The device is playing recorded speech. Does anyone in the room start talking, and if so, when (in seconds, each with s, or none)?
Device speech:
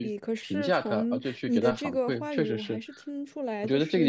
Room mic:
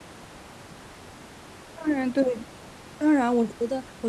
1.8 s